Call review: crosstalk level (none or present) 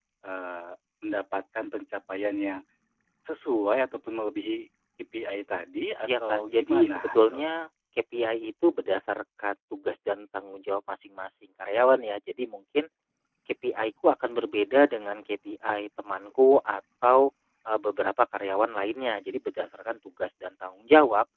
present